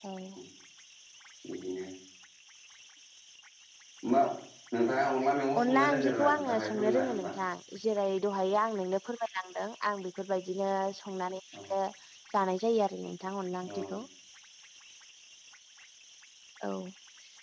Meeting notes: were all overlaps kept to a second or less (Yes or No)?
No